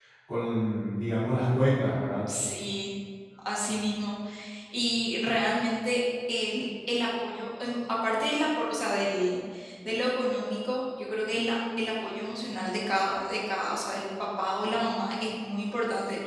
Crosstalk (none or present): none